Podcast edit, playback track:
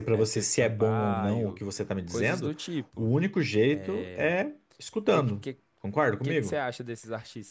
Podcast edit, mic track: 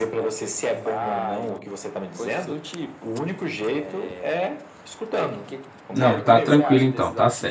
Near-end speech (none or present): present